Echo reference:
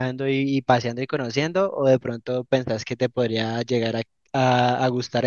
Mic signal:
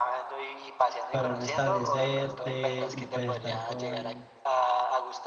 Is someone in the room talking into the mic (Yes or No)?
Yes